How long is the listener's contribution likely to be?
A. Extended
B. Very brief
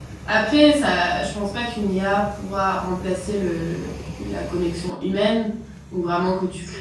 B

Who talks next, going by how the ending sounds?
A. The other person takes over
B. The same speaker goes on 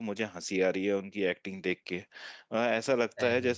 B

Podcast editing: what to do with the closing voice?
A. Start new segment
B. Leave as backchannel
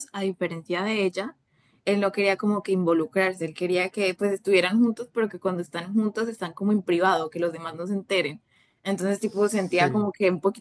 B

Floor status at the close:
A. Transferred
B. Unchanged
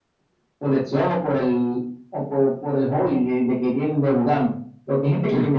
B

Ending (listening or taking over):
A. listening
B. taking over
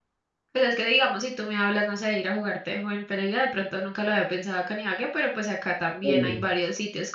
A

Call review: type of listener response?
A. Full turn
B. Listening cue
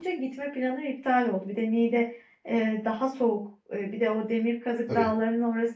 B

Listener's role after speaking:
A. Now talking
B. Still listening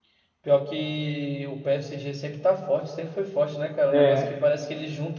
B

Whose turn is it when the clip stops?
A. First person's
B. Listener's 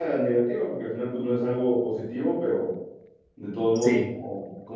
A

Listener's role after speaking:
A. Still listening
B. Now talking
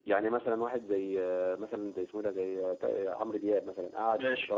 A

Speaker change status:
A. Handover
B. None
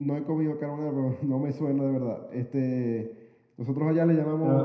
B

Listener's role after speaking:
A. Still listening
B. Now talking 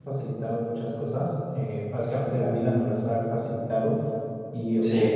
A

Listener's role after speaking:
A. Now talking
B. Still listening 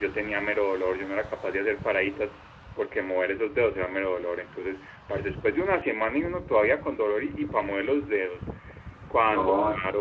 B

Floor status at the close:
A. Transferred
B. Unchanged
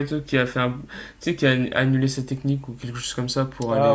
A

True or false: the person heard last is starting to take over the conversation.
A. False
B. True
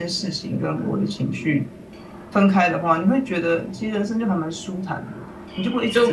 B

